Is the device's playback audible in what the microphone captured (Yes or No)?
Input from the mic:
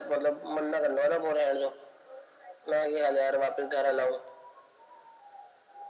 Yes